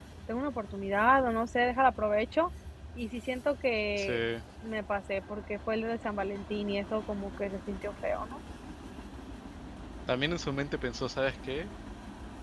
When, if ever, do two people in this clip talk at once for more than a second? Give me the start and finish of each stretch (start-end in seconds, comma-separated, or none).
none